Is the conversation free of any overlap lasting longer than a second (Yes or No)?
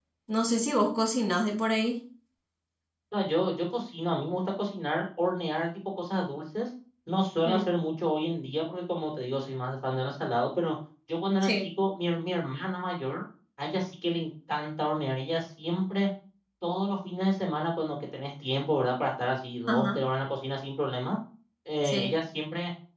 Yes